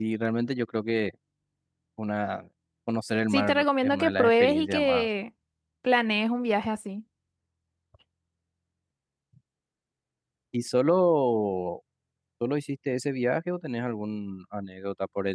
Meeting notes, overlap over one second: present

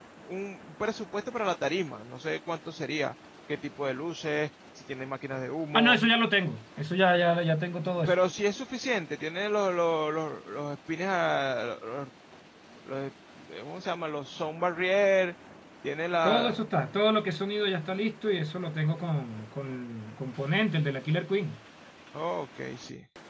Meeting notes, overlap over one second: none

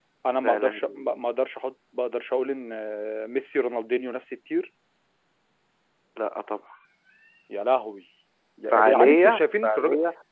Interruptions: present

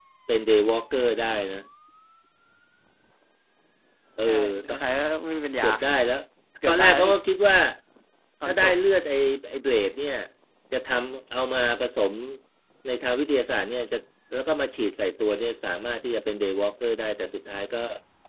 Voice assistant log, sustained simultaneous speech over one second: none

